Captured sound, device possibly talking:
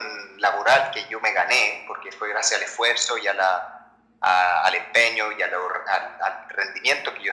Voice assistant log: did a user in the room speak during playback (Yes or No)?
No